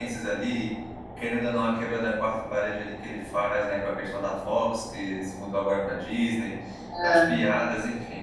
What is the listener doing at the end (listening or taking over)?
listening